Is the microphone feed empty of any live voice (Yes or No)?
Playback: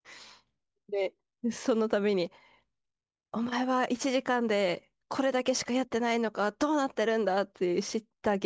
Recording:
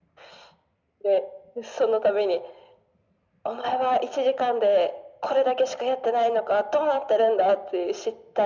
Yes